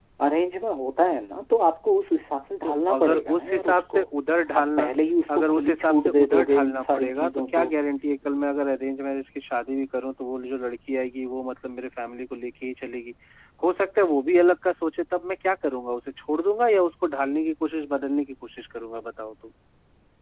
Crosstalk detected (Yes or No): Yes